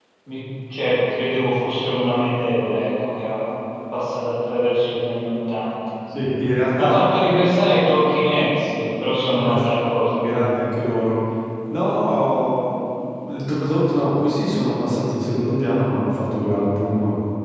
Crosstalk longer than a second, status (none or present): none